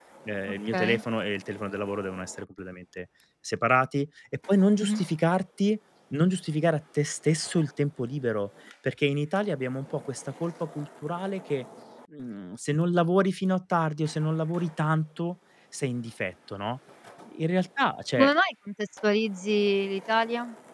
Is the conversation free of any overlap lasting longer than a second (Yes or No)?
Yes